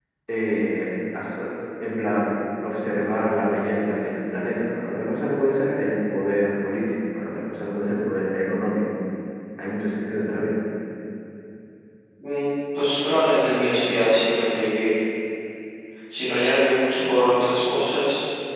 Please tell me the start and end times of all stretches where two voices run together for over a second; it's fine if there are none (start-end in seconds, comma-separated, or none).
none